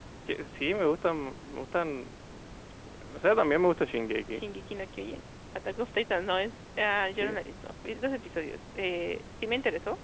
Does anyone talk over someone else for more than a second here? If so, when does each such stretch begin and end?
none

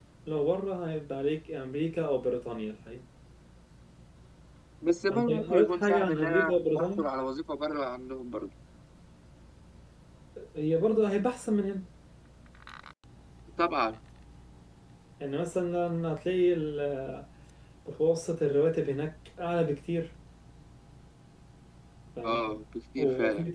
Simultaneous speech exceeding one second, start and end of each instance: 5.1-7.1

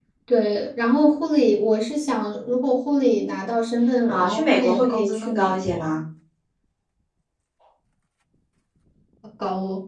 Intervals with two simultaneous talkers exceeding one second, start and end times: 4.1-6.0

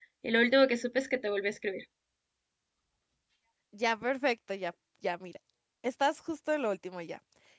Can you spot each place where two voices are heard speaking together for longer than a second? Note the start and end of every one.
none

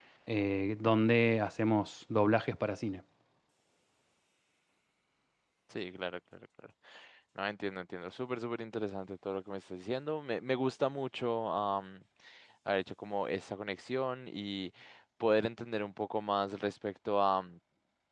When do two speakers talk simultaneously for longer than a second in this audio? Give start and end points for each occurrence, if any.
none

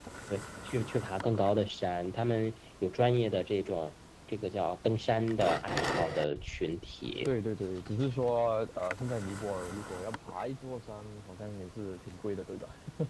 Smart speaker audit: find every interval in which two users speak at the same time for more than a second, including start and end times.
none

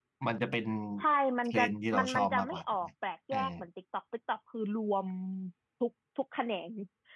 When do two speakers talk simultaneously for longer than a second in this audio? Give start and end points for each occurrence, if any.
1.4-2.9

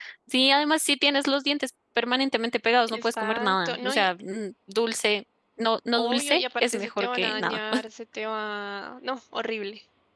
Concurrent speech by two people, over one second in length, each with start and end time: 2.9-4.1, 5.9-7.6

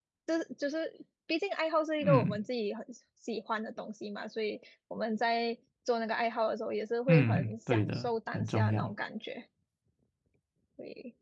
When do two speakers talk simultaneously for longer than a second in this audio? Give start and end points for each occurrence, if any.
7.1-8.9

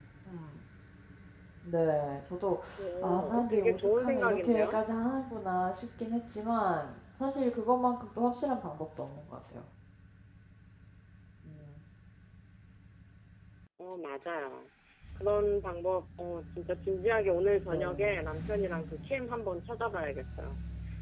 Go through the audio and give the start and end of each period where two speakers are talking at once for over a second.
3.0-4.8

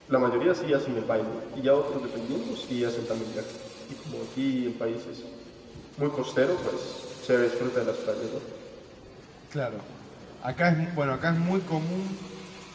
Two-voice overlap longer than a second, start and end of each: none

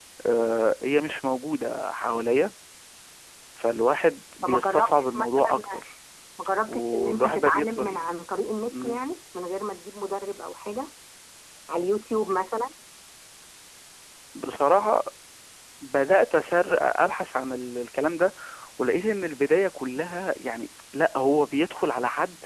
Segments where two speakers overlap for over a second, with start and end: 4.4-5.6, 6.7-8.1

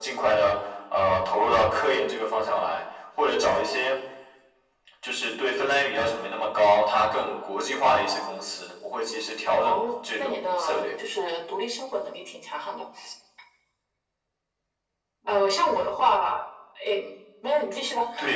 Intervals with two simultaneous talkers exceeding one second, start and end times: 9.6-10.9

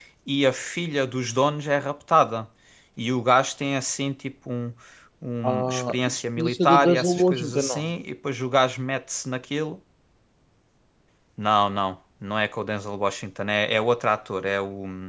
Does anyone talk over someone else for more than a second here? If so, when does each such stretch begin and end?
5.4-7.9

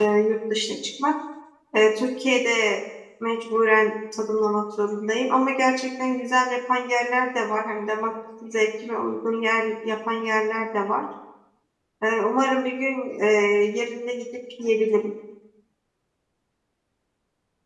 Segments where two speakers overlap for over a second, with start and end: none

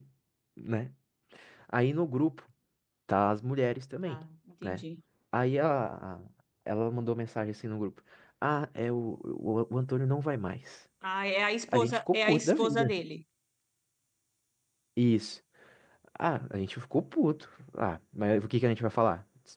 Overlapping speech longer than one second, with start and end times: 11.7-12.9

